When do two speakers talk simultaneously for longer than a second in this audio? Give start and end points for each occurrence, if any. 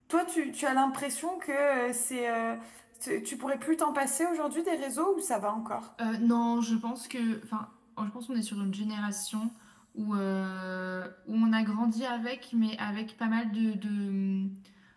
none

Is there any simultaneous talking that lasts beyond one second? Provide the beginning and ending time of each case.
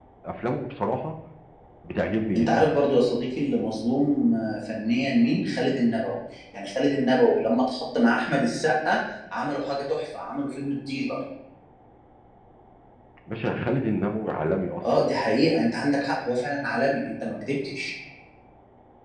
none

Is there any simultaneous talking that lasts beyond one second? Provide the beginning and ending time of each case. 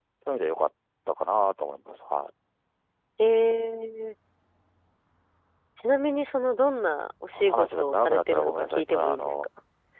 7.3-9.3

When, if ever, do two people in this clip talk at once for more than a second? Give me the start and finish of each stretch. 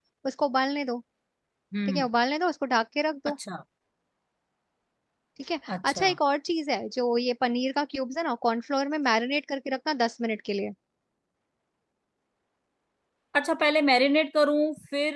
none

